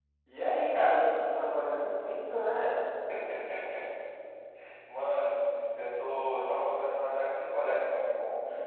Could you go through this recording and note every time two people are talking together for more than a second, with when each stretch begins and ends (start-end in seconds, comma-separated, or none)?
none